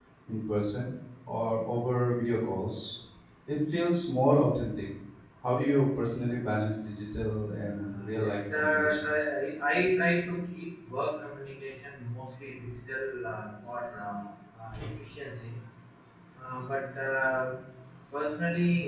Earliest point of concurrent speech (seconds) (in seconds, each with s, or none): 7.8 s